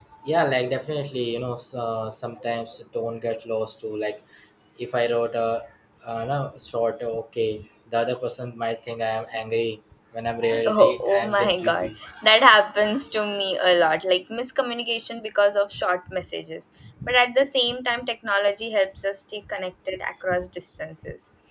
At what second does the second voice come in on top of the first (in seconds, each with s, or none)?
10.7 s